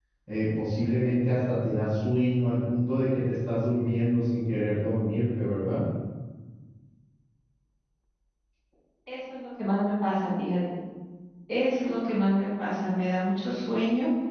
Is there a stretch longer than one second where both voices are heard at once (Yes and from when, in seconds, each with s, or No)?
No